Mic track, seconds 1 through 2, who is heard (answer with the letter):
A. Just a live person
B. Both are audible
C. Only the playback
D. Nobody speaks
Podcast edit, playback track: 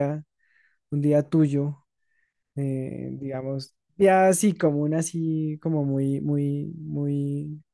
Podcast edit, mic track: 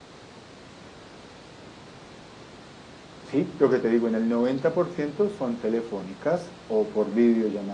D